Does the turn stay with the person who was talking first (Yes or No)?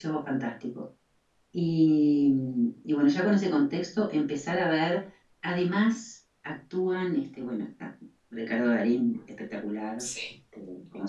Yes